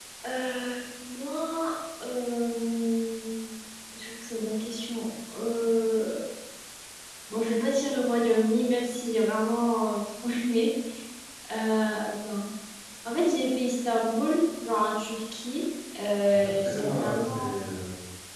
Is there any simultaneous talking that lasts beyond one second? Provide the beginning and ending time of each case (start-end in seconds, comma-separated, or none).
16.3-17.5